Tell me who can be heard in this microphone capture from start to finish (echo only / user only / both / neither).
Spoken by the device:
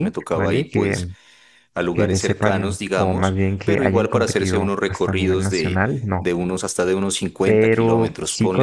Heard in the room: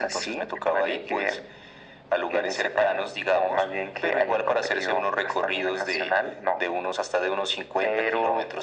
echo only